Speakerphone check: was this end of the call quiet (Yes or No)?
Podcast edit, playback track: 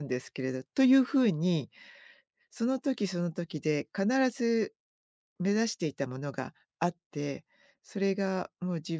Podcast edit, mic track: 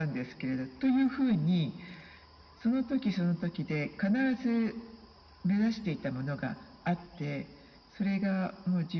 Yes